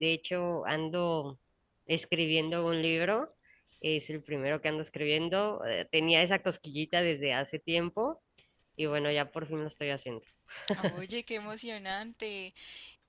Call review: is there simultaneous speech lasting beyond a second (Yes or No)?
No